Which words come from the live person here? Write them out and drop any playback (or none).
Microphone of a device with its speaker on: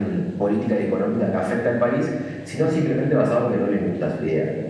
none